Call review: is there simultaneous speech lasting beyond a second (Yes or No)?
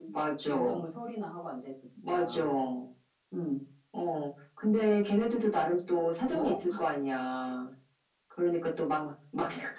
No